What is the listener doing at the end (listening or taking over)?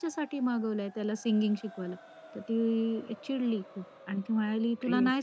listening